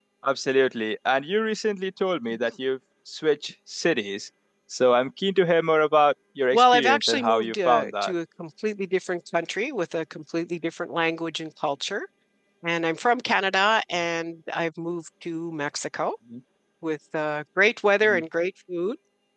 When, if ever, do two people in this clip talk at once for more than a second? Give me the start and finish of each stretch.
6.5-8.1

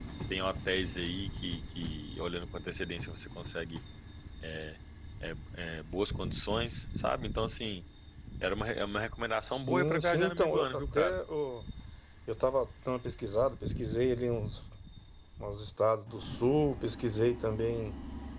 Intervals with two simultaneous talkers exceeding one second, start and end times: 9.5-11.1

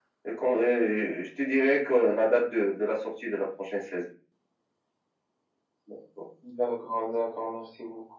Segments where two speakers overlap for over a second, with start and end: none

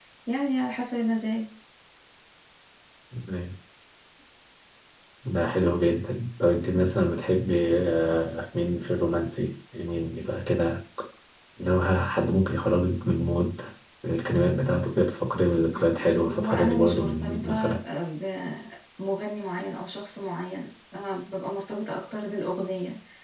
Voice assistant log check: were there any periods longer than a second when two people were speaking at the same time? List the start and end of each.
15.8-17.8

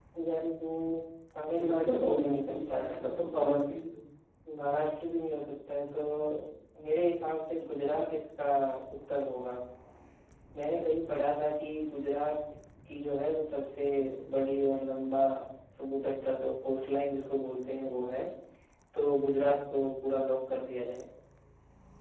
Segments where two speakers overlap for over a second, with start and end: 1.6-3.0

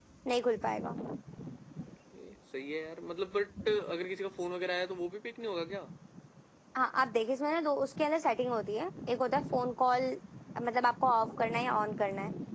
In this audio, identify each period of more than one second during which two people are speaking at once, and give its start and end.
none

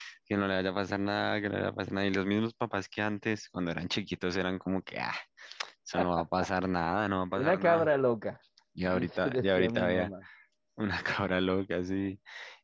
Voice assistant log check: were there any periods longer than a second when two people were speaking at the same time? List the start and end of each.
8.8-10.1

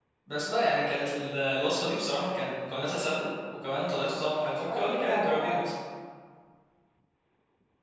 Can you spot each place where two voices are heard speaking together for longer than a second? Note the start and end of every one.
4.3-5.6

